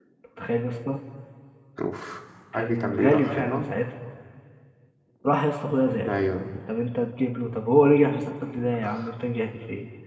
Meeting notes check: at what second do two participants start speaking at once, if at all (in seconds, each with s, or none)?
2.5 s